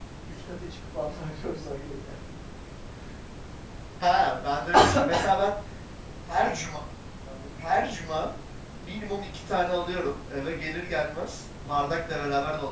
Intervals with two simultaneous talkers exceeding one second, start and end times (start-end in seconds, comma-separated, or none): none